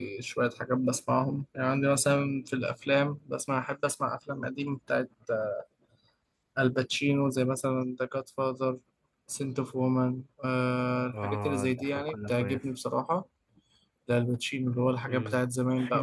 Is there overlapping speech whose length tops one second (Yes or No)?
Yes